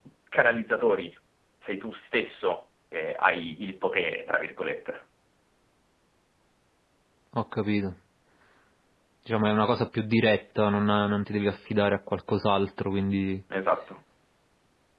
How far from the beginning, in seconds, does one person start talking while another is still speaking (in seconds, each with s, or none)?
none